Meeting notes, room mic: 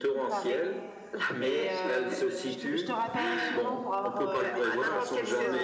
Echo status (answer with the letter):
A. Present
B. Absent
A